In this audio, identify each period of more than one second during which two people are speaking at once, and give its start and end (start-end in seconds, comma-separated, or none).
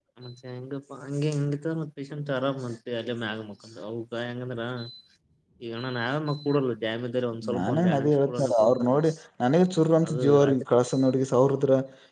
7.5-9.0